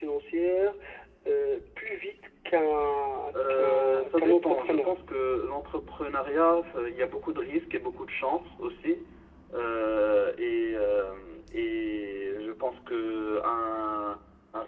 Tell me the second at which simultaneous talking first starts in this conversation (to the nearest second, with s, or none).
3 s